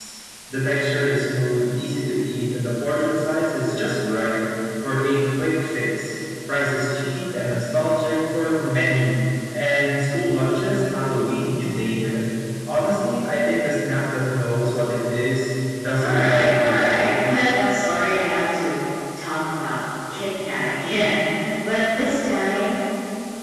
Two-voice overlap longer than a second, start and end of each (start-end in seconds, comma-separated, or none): 16.0-17.3